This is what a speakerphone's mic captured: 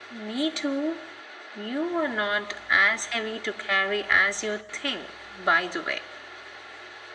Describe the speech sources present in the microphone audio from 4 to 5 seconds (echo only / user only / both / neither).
echo only